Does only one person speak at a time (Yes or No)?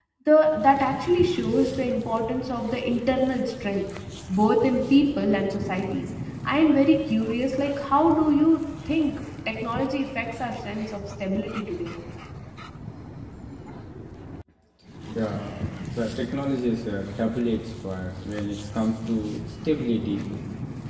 Yes